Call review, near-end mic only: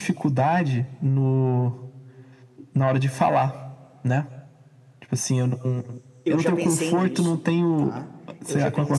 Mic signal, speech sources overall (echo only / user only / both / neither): both